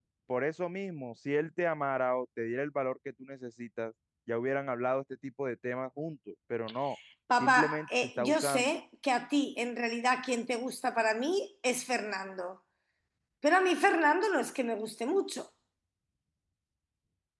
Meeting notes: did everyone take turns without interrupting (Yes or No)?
No